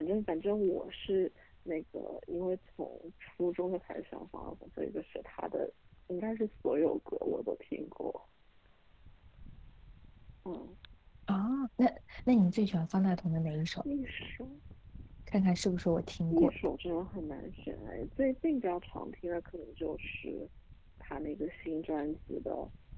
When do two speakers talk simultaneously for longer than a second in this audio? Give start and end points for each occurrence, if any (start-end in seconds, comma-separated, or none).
none